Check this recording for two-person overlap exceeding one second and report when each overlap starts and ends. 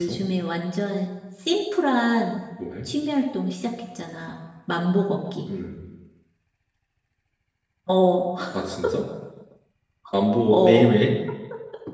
none

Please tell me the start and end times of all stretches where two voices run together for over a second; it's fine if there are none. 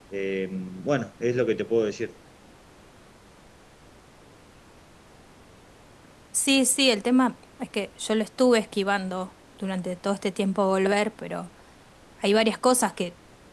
none

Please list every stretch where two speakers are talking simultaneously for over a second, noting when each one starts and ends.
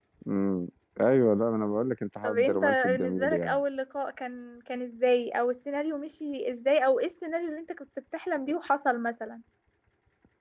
2.2-3.6

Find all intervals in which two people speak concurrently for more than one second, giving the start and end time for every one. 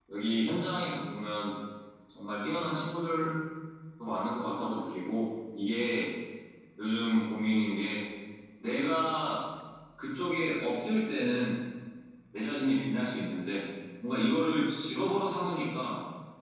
none

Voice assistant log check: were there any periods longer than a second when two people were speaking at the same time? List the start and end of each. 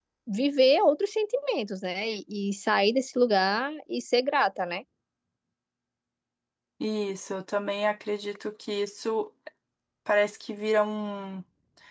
none

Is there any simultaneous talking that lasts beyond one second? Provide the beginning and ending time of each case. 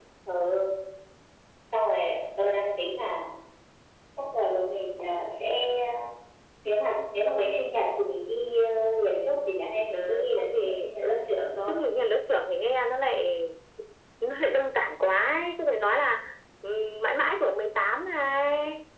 9.9-11.2

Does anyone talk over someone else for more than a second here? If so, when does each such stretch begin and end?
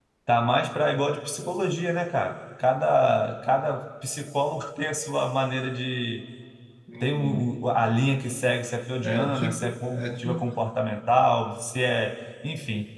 9.0-10.6

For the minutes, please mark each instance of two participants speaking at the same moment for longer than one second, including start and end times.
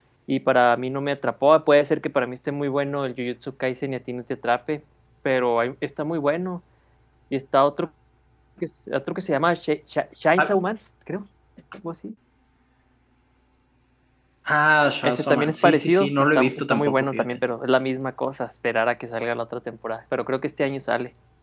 15.0-17.2

